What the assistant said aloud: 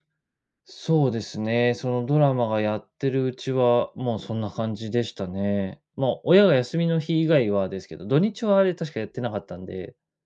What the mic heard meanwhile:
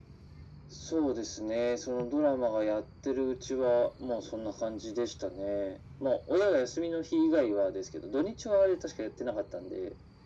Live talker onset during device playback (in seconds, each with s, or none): none